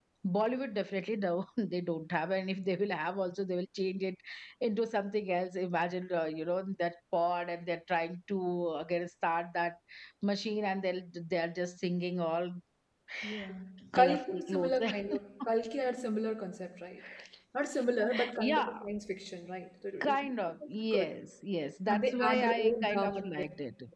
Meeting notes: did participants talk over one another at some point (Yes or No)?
Yes